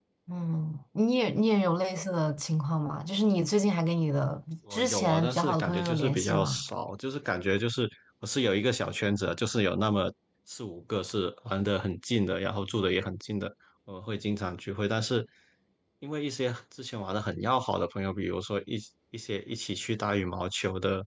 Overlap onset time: 4.7 s

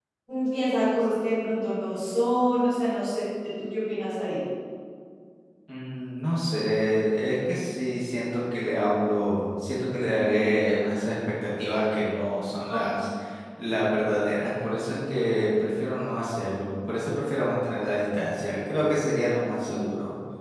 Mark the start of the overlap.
none

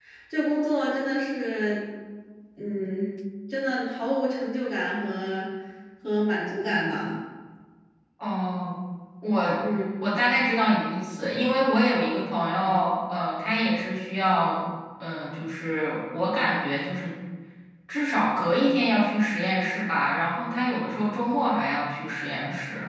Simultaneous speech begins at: none

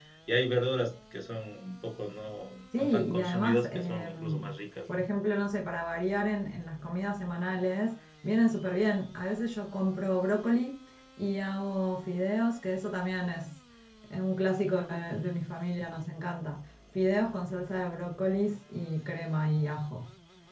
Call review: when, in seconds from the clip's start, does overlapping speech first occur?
2.7 s

